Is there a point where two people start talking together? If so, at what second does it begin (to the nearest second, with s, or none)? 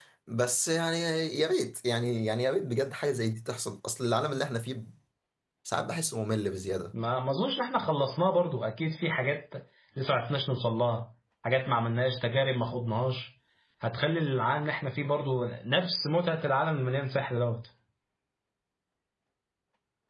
none